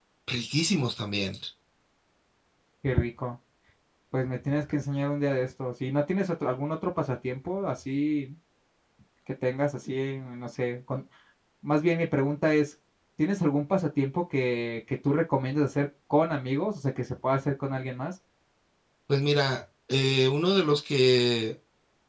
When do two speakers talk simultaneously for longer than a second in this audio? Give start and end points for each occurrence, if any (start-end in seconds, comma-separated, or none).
none